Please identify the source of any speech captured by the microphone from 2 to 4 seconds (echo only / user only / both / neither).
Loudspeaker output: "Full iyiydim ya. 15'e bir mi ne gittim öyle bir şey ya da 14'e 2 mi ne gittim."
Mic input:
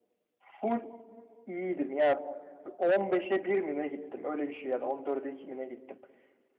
echo only